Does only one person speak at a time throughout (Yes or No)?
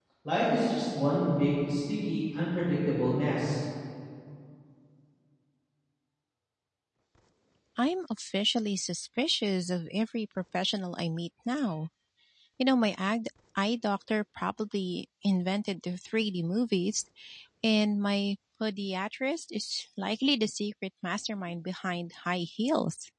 Yes